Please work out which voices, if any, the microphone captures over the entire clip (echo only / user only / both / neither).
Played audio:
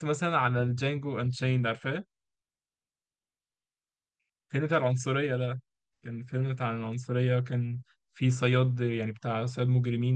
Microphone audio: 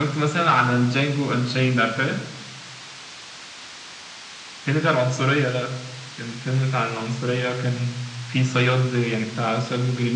echo only